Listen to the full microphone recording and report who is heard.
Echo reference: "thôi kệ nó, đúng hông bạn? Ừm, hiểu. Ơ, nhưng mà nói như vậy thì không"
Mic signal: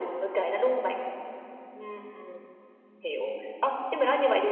echo only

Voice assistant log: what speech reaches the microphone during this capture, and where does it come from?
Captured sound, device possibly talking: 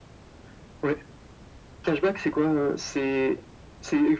echo only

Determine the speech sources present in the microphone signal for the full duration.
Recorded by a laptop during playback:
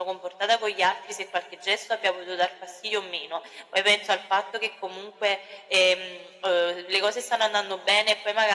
echo only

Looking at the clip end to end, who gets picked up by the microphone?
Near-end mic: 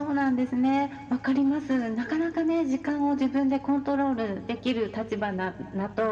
echo only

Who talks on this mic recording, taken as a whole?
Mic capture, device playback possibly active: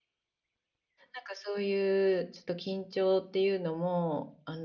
user only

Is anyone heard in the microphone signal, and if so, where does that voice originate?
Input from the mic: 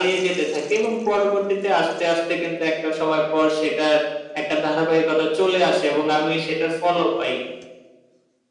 echo only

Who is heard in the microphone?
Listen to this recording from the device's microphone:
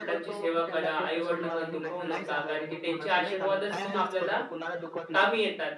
both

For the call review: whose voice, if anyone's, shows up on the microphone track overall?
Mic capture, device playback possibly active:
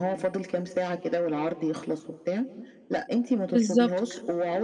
both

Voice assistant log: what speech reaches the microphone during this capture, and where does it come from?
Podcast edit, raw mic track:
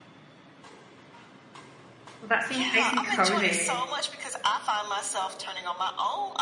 both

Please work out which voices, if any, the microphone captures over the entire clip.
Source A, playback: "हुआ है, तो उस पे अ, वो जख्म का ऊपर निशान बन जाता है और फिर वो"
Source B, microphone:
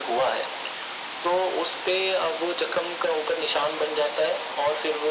echo only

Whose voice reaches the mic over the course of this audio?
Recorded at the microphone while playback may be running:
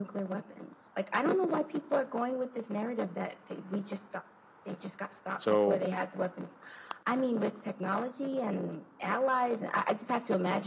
both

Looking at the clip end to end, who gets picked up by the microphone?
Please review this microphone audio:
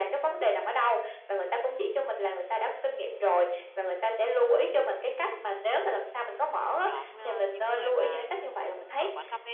both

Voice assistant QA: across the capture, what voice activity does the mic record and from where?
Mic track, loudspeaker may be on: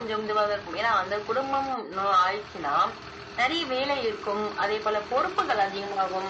echo only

